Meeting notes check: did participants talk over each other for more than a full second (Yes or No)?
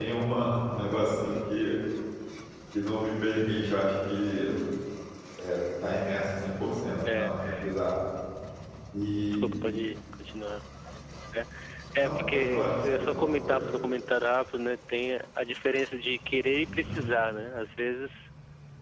Yes